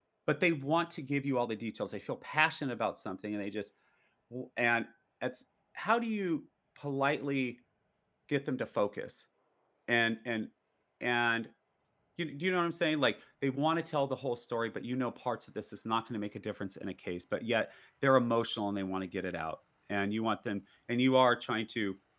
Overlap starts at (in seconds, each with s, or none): none